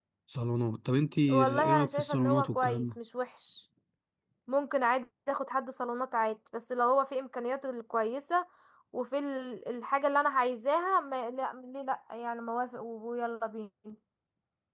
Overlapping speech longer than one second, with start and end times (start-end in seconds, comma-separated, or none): 1.3-2.8